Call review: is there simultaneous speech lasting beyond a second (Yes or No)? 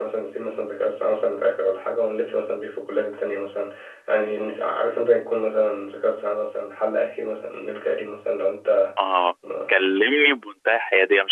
No